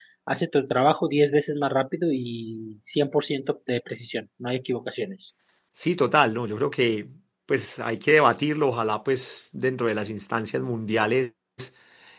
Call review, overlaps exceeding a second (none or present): none